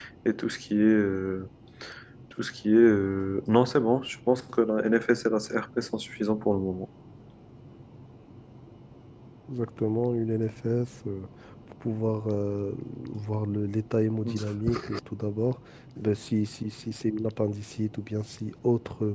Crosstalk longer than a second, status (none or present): none